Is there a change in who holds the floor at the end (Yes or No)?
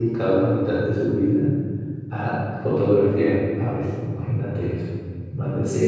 Yes